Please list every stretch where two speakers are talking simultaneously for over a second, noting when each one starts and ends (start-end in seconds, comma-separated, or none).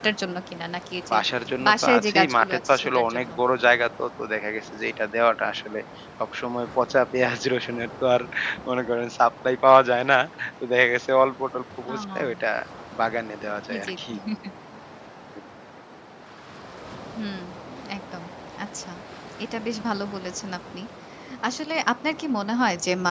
1.6-3.3